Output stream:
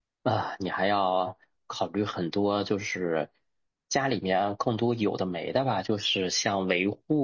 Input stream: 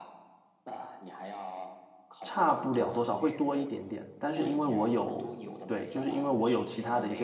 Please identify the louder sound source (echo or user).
user